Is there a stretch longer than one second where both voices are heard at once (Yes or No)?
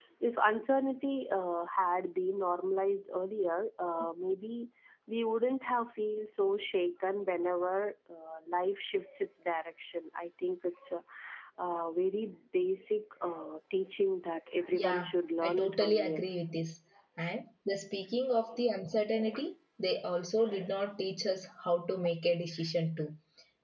Yes